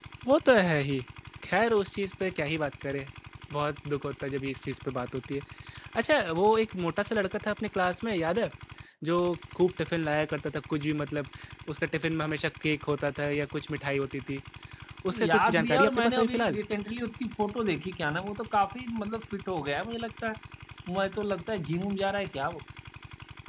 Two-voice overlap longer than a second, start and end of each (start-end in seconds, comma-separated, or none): 15.2-16.6